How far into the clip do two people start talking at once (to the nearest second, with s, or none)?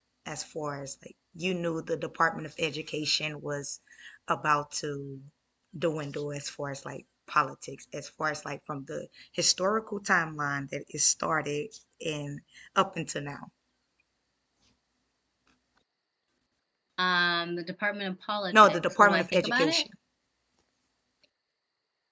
19 s